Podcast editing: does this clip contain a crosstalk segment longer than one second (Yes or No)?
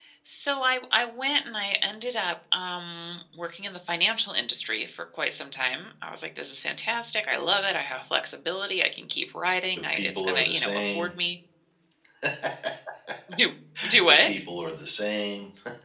Yes